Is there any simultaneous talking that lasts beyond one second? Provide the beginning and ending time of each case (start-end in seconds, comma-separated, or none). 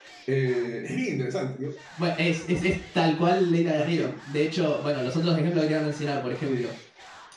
none